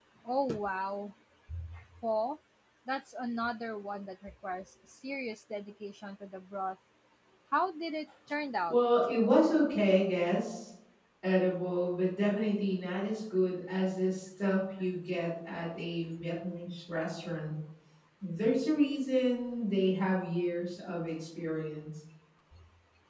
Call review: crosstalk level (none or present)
none